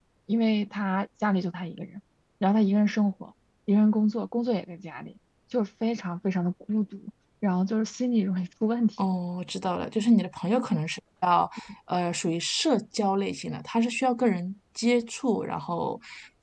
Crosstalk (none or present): none